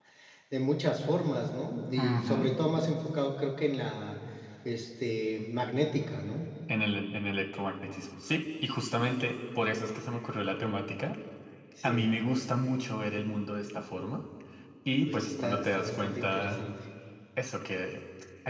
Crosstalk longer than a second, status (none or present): present